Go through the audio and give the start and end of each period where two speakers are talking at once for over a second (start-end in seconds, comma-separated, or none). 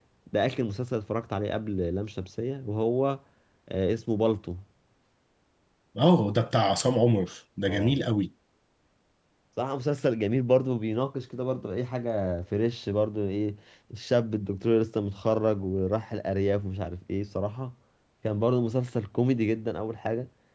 none